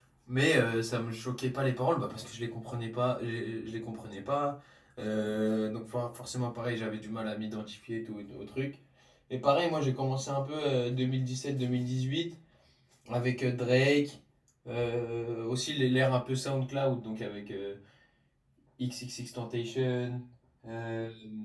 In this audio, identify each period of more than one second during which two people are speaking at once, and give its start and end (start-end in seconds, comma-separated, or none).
none